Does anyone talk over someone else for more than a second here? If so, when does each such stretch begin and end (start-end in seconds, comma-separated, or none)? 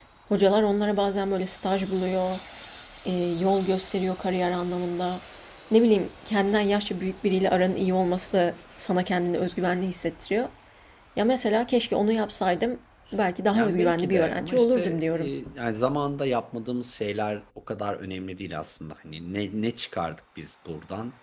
13.5-15.3